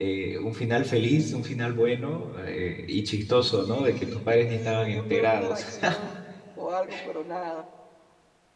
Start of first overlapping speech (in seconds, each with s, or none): 3.7 s